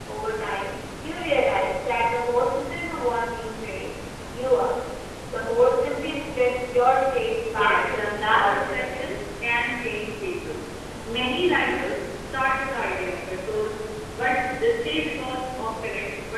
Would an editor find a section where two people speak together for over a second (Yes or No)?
Yes